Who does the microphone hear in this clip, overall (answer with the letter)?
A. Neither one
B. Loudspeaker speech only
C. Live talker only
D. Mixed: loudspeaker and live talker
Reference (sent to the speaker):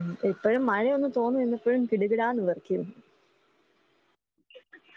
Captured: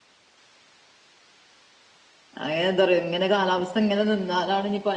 C